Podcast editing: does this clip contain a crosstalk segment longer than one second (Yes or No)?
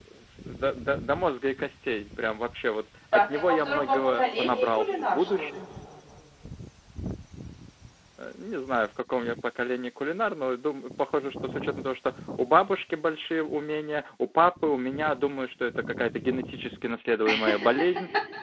Yes